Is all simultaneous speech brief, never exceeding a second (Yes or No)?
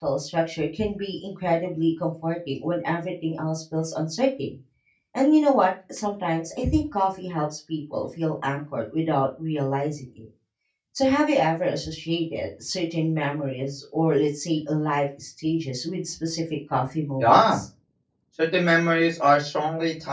Yes